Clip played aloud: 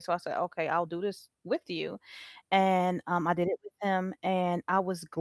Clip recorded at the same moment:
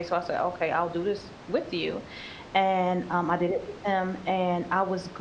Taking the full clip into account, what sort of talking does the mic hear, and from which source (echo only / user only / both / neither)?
echo only